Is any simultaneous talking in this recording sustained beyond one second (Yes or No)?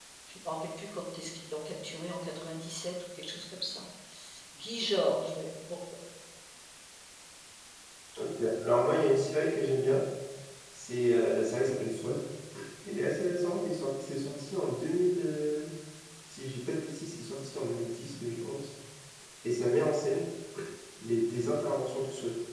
No